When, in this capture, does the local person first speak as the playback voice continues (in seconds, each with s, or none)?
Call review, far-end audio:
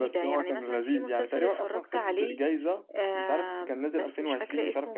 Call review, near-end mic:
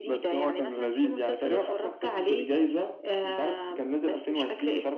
none